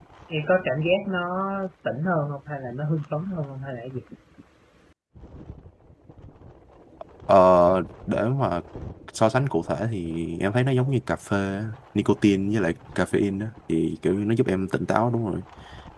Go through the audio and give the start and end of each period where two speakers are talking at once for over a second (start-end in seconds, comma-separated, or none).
none